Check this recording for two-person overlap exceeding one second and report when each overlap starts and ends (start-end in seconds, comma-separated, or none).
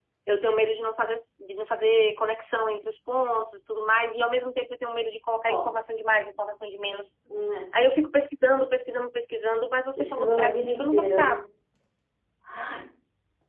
10.0-11.4